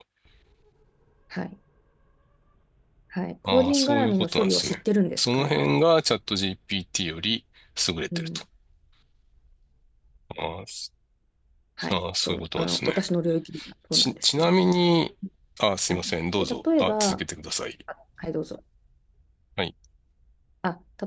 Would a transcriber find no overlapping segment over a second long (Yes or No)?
No